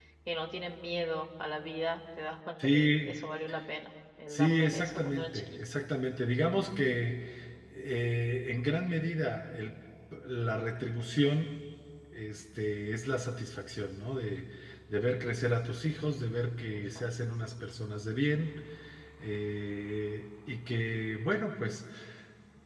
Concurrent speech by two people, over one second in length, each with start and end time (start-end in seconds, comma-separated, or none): 4.3-5.6